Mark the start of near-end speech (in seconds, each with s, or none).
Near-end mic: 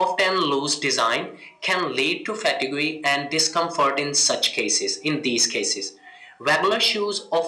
none